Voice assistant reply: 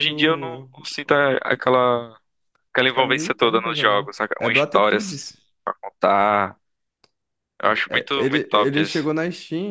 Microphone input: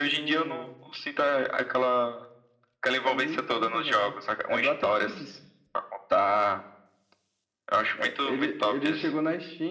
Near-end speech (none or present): none